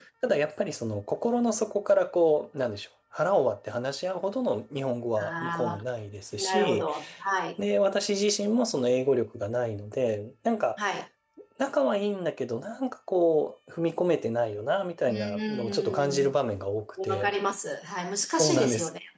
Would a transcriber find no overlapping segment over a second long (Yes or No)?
No